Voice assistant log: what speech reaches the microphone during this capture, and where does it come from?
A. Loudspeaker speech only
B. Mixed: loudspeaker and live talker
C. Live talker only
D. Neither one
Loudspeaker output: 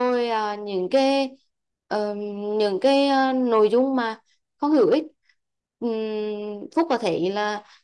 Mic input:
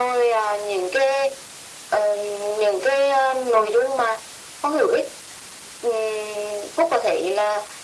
A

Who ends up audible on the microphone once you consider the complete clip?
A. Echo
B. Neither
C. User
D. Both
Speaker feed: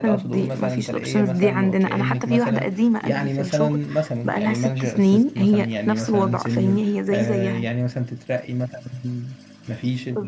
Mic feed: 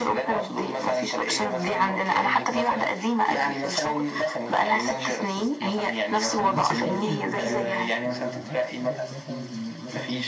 D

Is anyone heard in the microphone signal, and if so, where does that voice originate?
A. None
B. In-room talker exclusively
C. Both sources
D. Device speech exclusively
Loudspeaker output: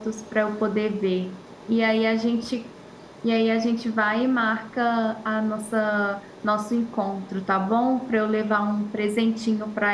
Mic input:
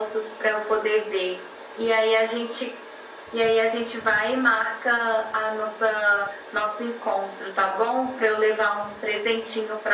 D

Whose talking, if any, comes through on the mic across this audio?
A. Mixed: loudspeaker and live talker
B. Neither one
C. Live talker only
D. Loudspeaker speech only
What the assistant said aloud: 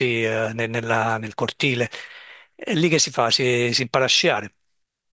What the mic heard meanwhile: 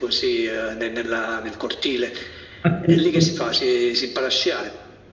A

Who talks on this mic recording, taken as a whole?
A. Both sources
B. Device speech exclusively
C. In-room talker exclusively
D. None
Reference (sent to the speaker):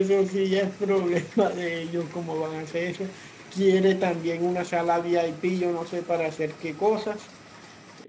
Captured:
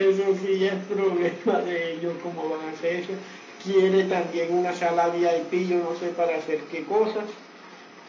B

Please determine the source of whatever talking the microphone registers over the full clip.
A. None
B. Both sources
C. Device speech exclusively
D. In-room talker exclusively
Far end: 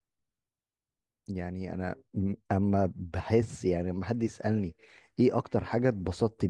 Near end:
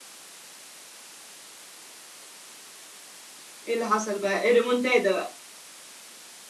D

